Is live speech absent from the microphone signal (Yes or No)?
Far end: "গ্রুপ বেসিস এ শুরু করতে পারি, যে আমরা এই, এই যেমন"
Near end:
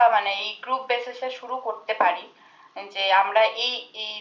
Yes